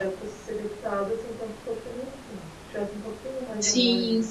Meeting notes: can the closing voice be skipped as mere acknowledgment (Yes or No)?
No